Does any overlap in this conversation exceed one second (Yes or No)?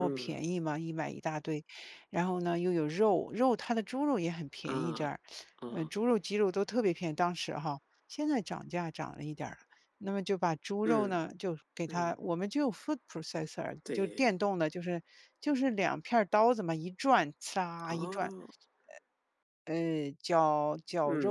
No